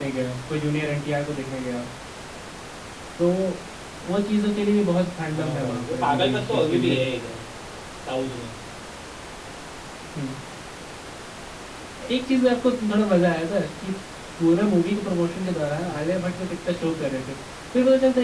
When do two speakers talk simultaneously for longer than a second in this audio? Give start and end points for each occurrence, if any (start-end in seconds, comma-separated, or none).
5.3-7.0